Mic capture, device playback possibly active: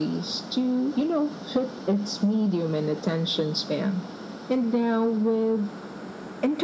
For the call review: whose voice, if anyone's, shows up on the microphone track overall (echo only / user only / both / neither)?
echo only